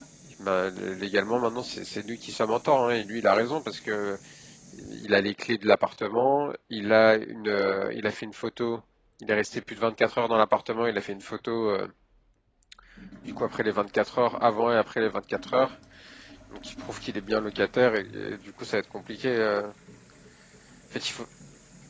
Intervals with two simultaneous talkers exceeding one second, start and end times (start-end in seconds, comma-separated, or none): none